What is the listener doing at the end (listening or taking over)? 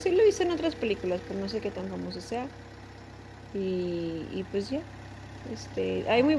listening